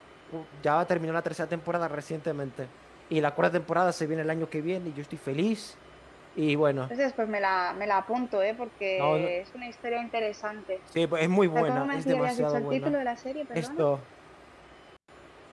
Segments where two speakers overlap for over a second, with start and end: 11.6-12.9

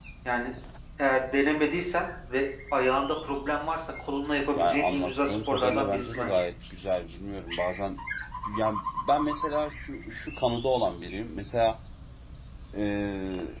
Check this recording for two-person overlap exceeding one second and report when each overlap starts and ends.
4.5-6.4

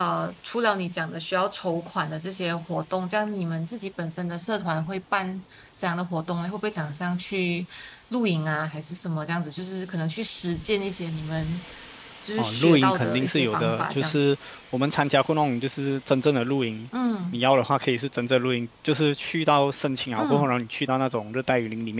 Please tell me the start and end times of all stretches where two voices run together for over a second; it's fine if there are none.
12.4-14.2

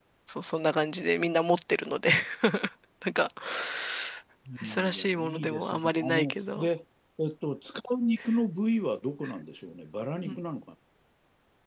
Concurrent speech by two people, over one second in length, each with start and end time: 4.7-6.7

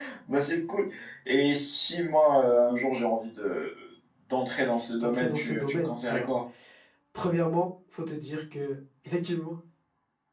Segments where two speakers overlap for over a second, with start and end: 5.0-6.3

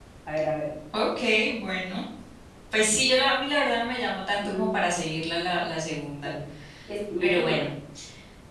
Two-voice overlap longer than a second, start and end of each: none

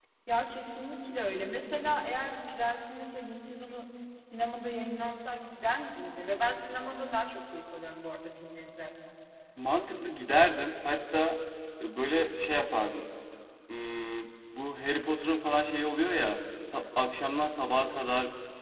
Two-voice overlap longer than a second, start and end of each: none

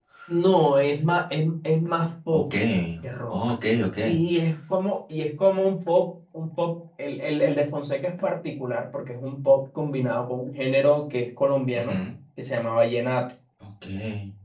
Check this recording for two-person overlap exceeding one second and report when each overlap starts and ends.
none

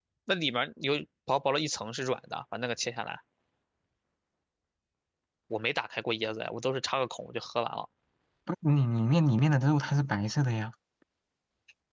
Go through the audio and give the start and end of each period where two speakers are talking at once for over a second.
none

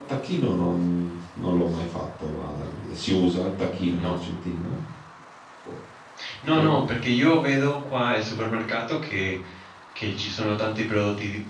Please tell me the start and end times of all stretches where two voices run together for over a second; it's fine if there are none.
none

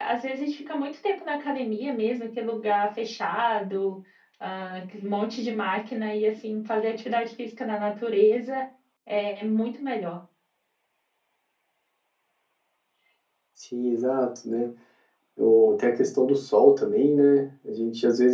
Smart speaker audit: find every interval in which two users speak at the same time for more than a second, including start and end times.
none

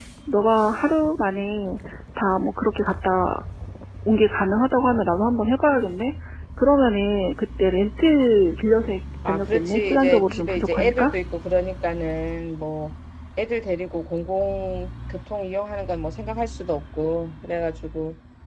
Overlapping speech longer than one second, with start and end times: 9.3-11.1

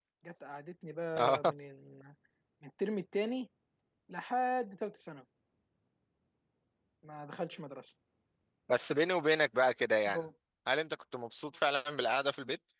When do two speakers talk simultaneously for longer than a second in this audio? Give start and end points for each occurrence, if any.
none

